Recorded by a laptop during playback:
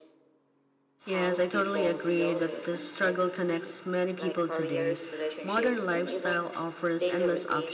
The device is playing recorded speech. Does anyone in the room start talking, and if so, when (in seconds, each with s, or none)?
1.1 s